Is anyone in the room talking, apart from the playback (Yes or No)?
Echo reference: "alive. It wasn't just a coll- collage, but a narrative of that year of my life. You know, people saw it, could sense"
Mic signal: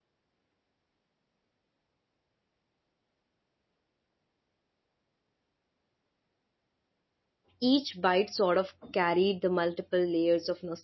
Yes